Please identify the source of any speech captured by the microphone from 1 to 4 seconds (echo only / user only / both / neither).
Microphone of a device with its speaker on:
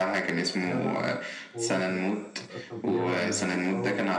both